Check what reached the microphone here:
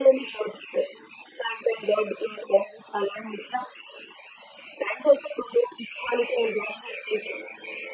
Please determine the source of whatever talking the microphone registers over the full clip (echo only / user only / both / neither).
echo only